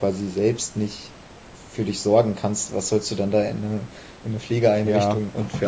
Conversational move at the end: taking over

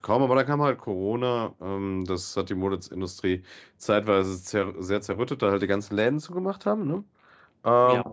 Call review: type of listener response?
listening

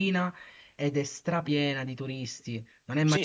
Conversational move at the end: taking over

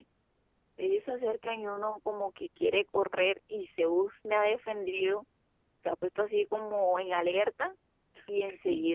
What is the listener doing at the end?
listening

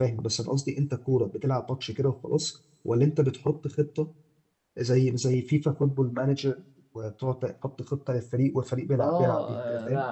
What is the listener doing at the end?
taking over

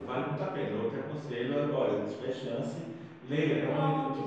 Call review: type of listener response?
listening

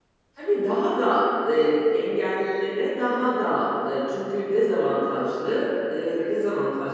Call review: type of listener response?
listening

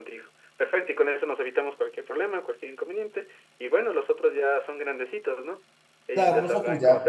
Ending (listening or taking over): taking over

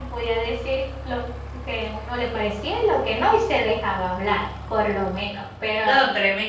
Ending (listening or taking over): taking over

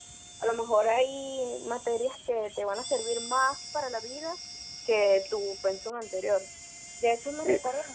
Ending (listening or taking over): listening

